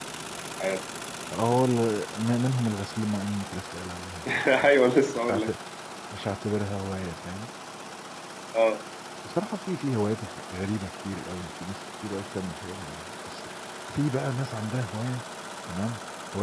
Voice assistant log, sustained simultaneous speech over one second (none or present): none